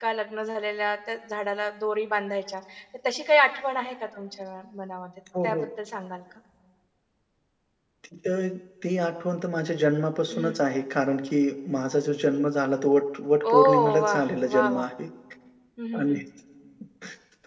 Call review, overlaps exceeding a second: present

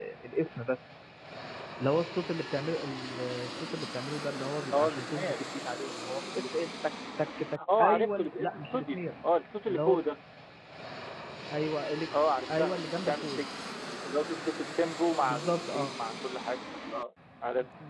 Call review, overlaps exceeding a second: present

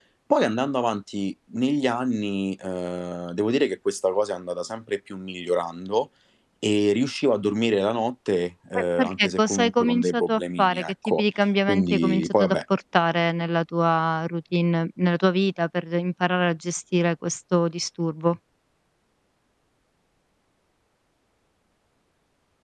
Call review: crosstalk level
present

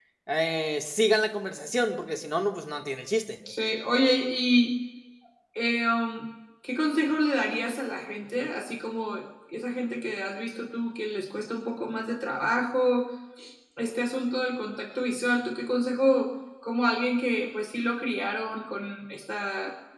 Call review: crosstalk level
none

